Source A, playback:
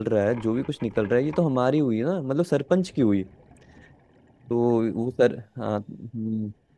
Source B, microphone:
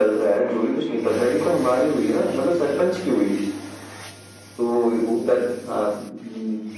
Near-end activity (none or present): none